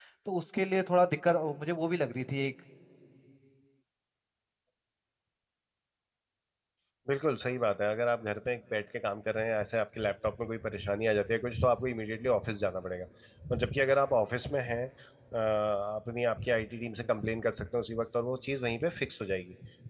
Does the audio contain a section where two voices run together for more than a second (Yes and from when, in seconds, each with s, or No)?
No